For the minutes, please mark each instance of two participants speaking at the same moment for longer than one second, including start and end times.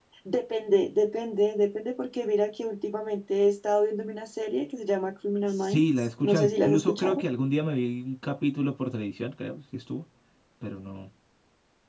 5.5-7.2

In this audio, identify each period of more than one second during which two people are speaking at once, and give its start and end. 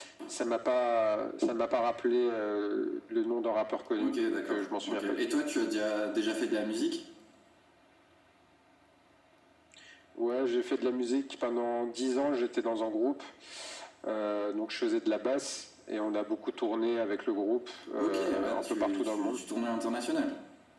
4.0-5.4, 18.0-19.4

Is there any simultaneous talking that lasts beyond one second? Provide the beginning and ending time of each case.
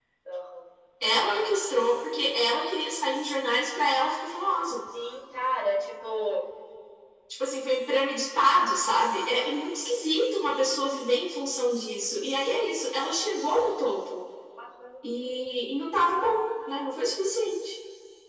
none

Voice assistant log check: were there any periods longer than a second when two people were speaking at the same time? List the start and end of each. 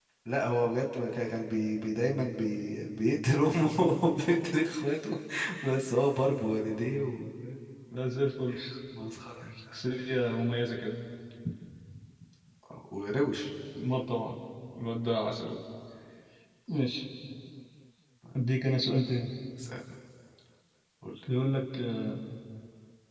none

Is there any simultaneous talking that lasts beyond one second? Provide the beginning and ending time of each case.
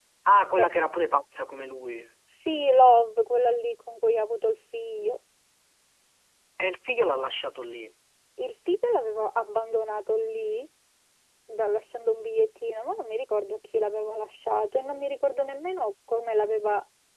none

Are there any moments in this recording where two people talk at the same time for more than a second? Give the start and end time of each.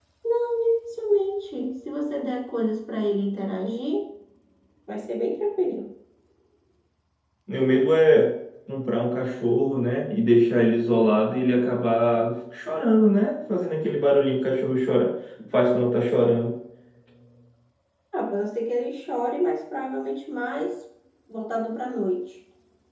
none

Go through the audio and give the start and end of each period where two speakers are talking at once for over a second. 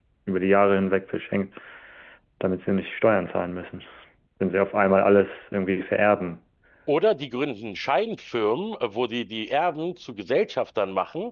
none

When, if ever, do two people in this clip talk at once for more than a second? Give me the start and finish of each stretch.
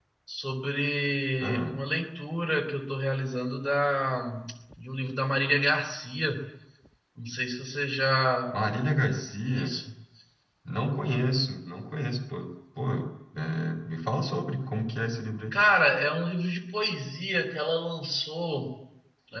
none

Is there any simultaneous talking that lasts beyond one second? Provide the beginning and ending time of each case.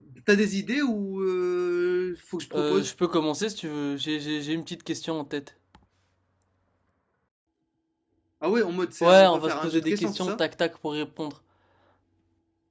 9.0-10.4

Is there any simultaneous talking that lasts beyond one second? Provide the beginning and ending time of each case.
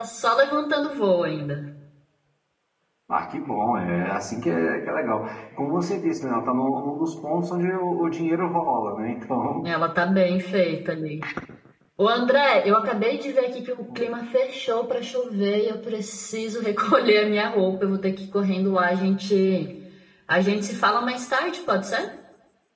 none

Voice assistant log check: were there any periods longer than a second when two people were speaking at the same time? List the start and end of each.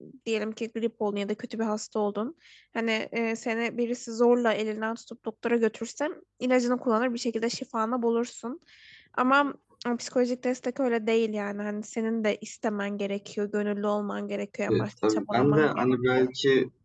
14.7-16.3

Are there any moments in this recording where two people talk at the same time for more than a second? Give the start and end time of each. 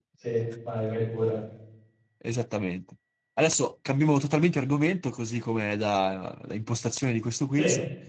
none

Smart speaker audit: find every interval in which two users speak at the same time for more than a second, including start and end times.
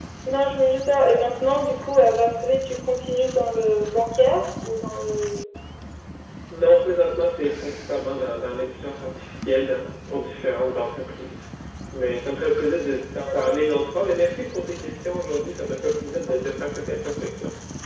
none

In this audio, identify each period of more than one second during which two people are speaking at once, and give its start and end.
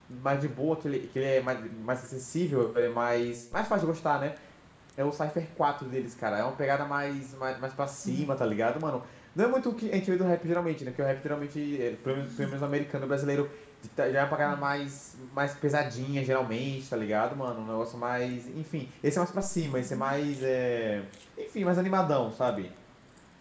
none

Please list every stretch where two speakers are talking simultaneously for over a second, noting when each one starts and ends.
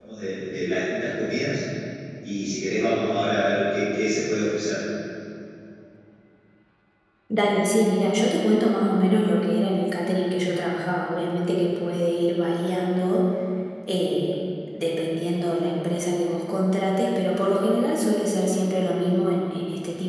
none

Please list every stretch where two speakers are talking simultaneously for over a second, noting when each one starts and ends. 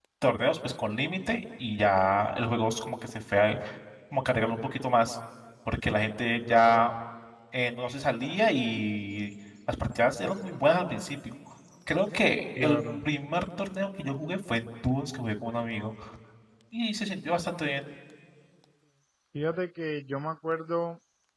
none

